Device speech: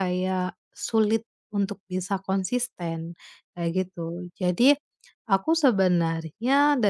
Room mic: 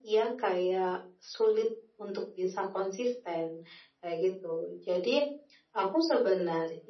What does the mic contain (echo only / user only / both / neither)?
echo only